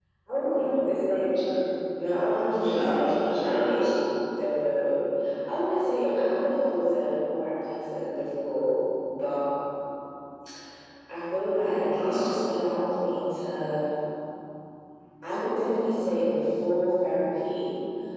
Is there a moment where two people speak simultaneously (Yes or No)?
Yes